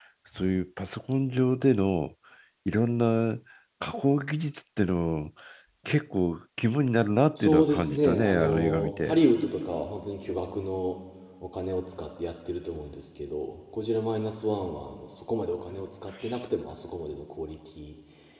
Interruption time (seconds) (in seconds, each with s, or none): 7.4 s